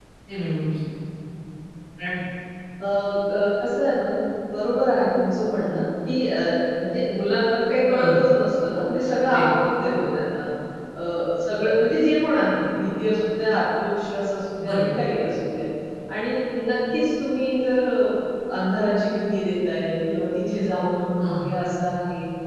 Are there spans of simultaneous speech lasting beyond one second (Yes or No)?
No